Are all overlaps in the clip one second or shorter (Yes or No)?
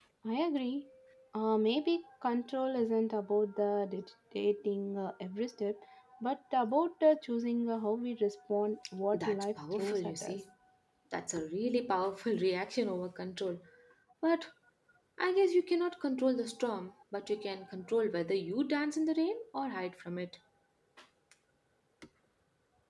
No